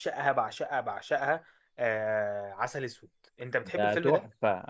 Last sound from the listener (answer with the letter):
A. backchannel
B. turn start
B